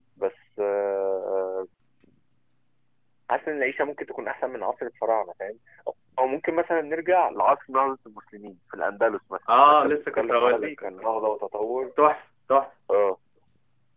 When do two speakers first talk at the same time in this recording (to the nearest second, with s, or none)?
9 s